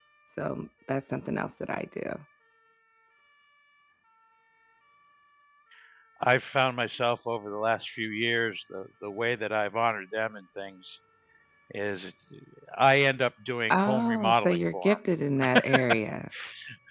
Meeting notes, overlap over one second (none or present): present